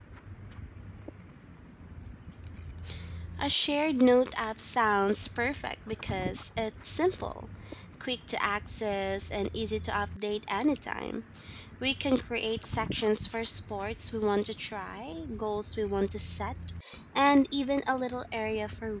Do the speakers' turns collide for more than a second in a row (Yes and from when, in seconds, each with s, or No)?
No